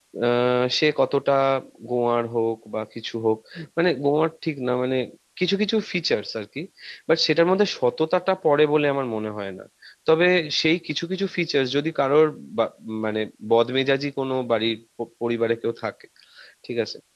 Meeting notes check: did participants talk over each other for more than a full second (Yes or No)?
No